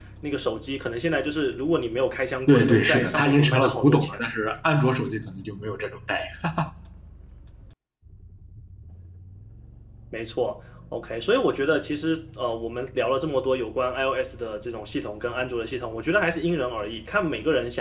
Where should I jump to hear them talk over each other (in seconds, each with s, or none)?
2.5 s